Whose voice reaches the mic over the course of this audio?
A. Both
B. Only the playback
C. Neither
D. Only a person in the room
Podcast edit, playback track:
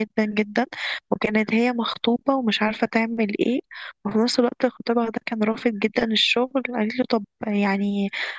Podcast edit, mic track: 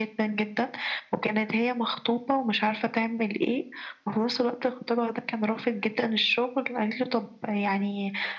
B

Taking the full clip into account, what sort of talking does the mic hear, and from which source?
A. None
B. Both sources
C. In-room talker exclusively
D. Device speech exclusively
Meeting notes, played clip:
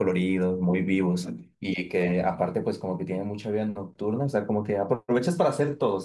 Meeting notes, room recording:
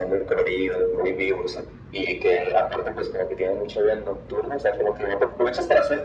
D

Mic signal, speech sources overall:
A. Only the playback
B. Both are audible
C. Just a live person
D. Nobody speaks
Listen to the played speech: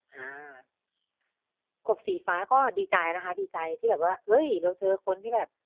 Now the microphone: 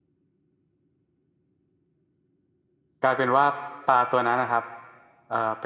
C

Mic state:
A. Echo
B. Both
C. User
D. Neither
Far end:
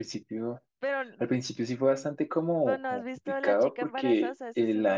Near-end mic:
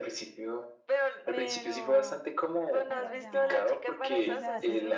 B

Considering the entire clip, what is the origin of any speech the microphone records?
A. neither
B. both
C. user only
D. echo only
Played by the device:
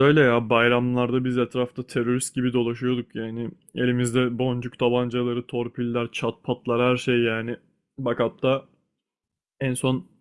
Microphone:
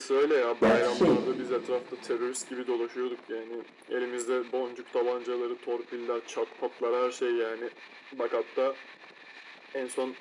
B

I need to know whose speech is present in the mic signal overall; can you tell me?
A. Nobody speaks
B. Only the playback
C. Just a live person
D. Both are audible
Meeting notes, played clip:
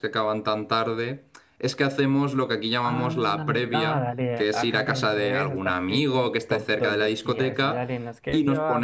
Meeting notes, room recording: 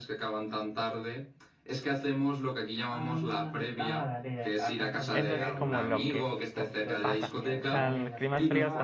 D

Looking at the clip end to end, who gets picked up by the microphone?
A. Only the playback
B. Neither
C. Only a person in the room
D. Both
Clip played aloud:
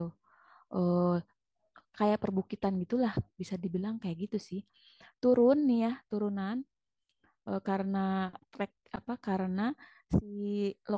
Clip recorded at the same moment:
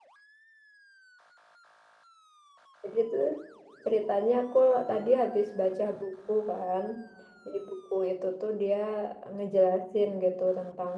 C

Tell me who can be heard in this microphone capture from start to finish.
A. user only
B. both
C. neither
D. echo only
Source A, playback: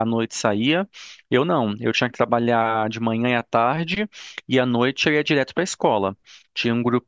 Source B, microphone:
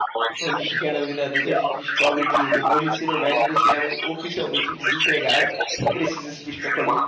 B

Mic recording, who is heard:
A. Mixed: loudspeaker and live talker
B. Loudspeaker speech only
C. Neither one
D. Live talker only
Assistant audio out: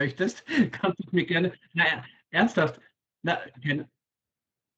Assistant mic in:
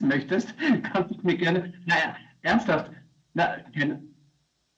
B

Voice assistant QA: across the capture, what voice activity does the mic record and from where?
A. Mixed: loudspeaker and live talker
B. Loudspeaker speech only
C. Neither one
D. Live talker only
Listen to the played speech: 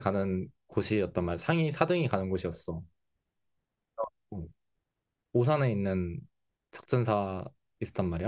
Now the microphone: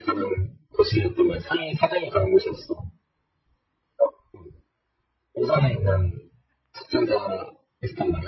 B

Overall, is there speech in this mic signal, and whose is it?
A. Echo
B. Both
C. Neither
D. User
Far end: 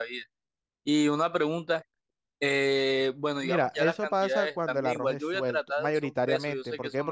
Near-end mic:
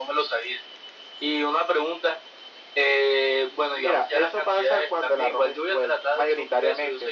A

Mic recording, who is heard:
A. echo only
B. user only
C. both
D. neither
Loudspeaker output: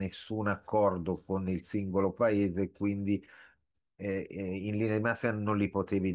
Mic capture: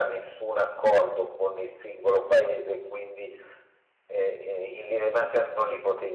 A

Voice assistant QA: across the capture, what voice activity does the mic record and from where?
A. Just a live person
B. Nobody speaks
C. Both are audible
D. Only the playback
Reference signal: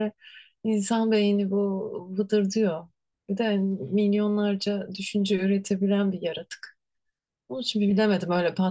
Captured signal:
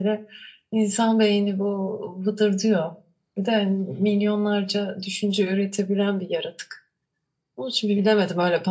D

